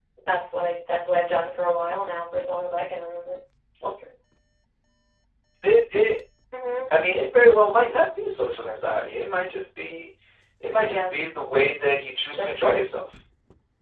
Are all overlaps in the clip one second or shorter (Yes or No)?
Yes